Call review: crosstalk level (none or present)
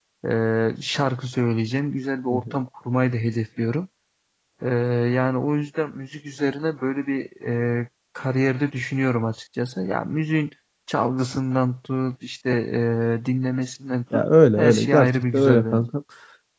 present